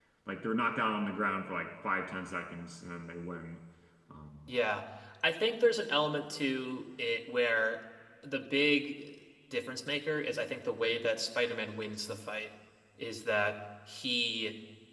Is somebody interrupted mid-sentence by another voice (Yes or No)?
No